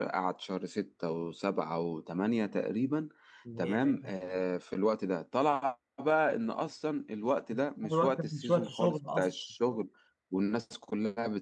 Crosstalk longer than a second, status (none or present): present